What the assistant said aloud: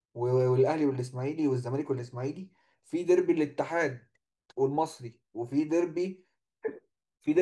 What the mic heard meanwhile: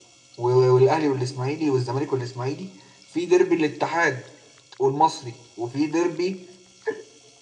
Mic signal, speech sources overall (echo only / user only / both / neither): echo only